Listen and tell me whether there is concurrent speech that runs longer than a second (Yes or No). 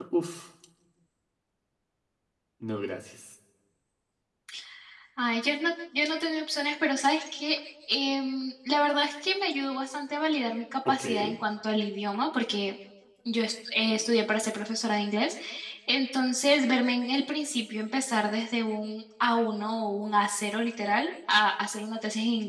No